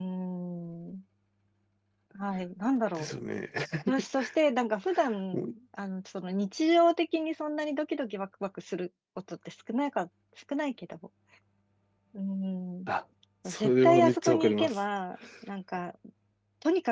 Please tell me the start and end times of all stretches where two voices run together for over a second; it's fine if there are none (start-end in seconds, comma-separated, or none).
13.6-14.8